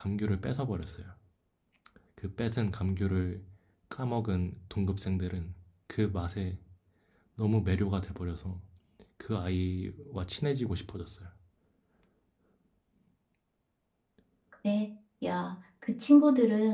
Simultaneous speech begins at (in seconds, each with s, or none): none